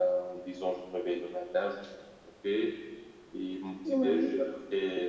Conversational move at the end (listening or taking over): listening